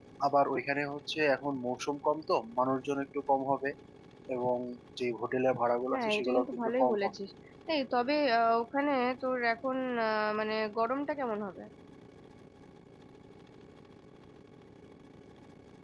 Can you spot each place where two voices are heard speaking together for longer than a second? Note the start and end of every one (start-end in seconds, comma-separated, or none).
5.9-7.1